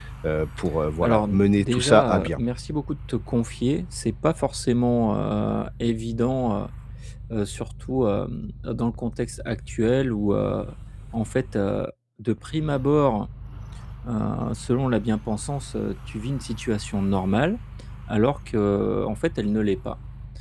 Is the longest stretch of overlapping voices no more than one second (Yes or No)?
No